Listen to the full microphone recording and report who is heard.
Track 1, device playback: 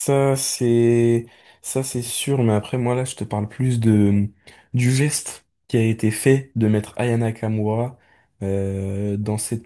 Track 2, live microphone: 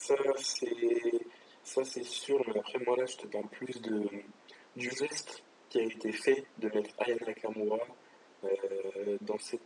echo only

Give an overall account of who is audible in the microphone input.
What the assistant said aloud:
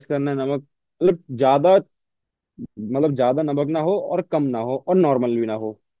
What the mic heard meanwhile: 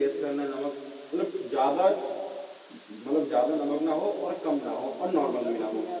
both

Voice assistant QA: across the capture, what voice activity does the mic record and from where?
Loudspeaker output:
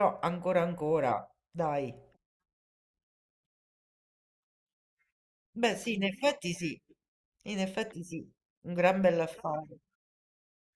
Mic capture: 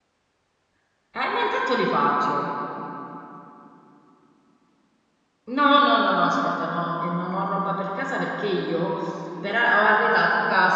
user only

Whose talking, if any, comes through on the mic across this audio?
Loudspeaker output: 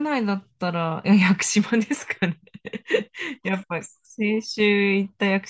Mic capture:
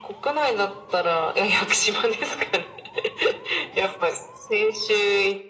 echo only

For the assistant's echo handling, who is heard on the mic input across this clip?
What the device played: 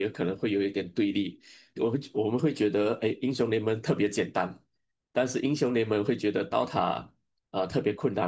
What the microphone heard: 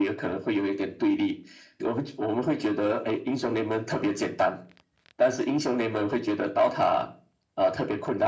echo only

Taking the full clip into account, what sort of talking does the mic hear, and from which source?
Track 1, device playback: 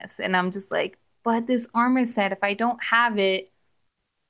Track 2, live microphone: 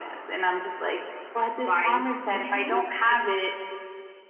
both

